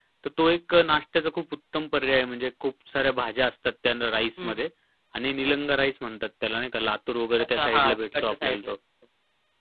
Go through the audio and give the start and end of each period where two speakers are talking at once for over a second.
7.4-8.7

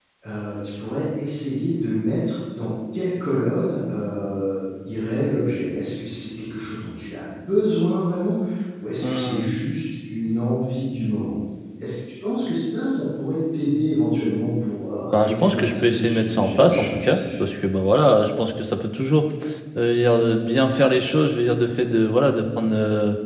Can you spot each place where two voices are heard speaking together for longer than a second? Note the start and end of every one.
15.1-17.2

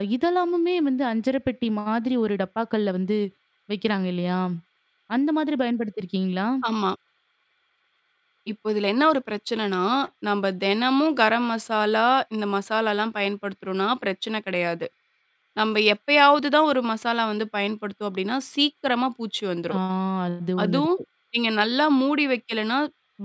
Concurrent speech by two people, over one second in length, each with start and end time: none

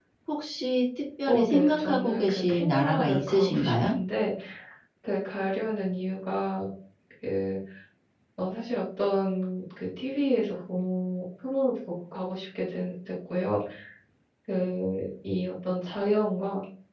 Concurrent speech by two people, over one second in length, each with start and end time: 1.3-3.9

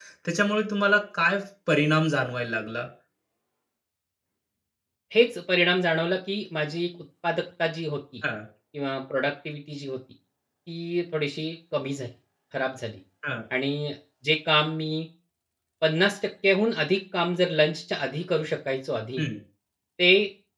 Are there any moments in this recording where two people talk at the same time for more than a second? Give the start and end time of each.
none

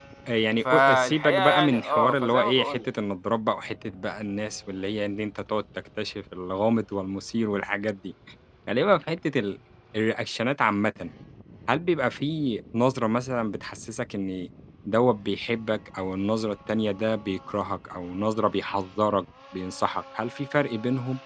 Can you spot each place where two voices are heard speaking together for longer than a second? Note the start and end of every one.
0.7-2.9

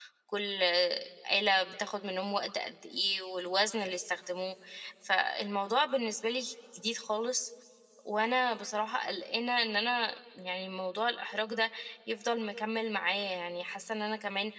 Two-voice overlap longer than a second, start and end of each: none

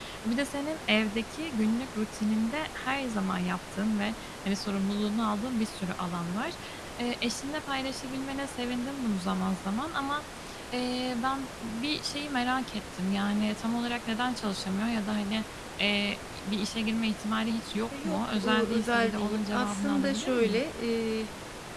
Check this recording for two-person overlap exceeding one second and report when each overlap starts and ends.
18.0-20.6

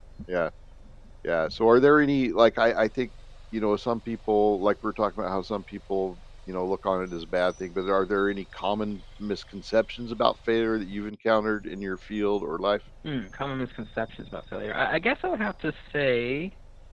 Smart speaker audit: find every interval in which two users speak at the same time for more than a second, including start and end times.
none

